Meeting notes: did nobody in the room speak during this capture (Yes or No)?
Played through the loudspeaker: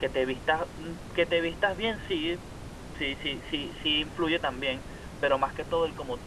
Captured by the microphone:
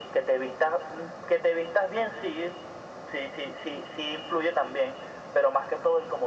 Yes